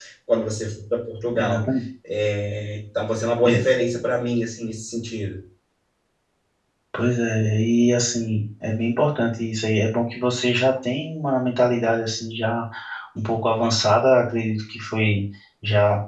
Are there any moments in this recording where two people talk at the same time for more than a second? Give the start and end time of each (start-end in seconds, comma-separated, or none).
none